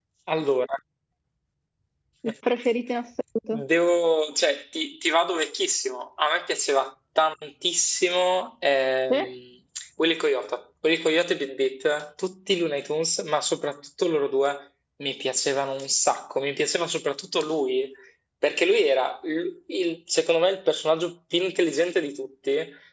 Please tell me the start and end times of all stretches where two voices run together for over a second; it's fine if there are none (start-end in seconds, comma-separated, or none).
none